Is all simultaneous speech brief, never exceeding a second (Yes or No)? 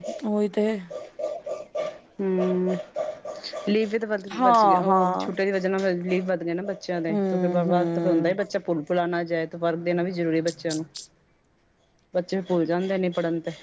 No